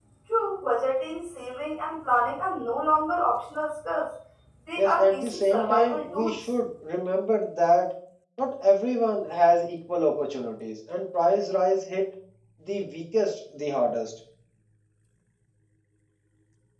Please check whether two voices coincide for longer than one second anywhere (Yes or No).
Yes